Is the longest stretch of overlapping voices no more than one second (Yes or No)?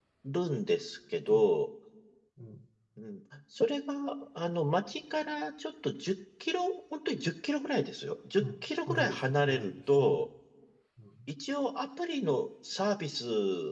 No